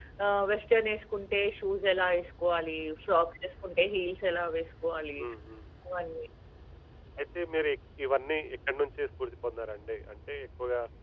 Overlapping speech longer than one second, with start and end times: none

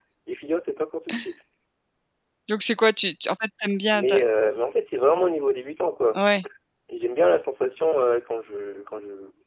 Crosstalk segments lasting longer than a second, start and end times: none

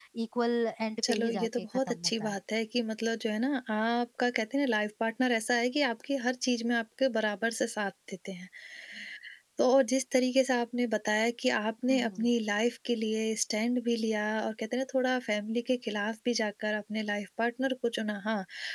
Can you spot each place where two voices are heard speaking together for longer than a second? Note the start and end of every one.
1.1-2.4

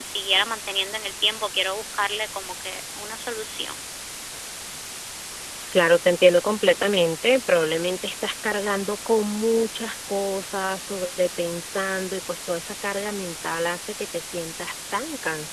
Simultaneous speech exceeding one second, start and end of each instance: none

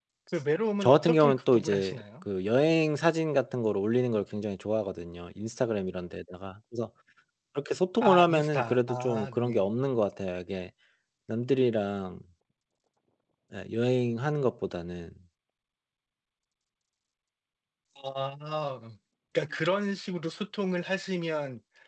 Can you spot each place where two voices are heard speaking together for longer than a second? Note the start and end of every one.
0.8-2.2, 8.0-9.7

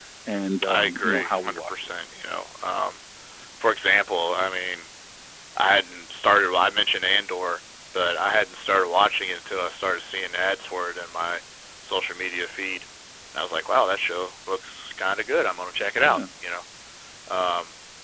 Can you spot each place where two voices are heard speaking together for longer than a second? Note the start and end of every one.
0.7-1.9

